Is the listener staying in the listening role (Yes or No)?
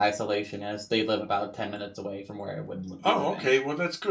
No